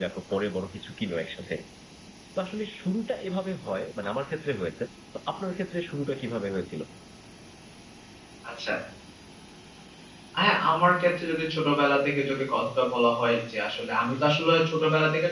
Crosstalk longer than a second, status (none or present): none